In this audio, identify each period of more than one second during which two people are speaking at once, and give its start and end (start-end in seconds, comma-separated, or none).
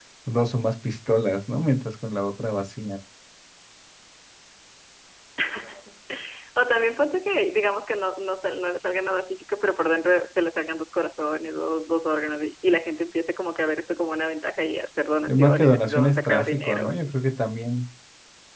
15.3-17.1